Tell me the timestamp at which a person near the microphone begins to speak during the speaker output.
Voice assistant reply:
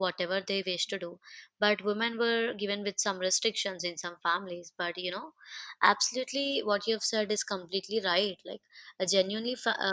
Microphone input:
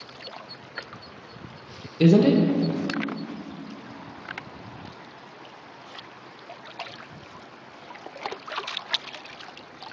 2.0 s

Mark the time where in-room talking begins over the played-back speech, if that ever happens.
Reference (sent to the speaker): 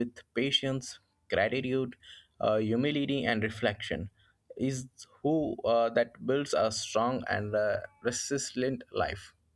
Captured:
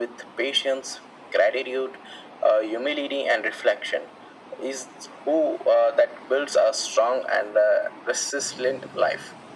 none

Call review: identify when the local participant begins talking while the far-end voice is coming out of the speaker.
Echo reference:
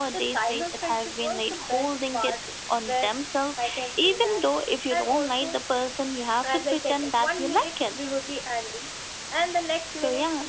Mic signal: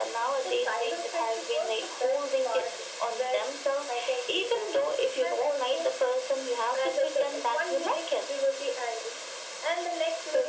none

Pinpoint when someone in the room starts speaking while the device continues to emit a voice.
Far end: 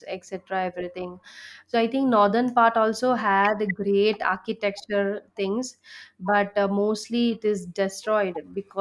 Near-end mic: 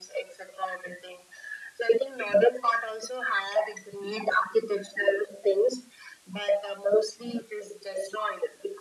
none

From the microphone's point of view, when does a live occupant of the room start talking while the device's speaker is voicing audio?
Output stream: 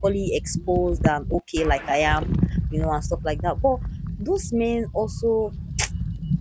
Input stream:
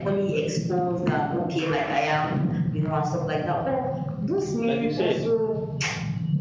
4.7 s

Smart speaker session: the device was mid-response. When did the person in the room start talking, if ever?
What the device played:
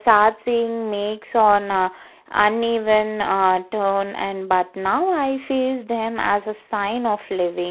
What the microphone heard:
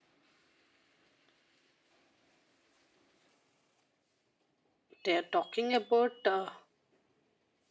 5.0 s

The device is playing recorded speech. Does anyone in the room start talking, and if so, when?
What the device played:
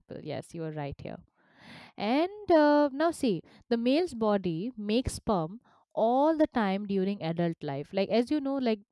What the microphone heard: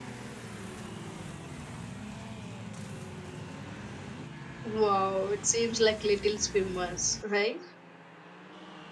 4.6 s

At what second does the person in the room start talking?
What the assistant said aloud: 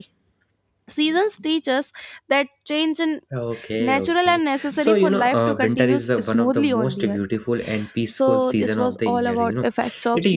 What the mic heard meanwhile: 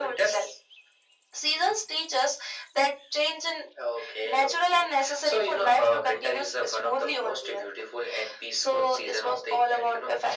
none

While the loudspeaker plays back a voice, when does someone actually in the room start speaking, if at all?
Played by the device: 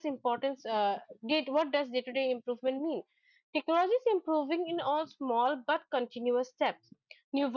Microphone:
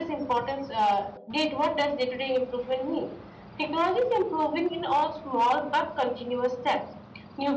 none

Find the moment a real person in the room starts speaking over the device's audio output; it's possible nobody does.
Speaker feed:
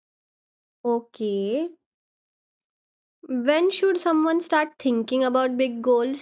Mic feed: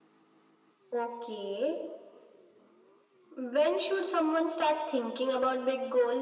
none

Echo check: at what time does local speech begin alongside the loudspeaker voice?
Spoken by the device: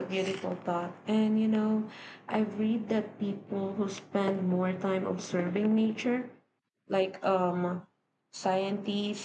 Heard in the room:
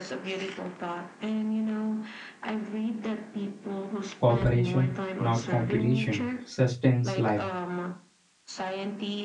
4.2 s

